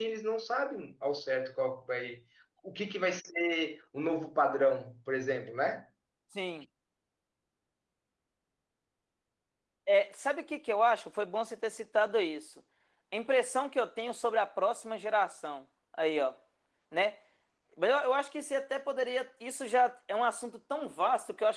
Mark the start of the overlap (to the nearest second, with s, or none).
none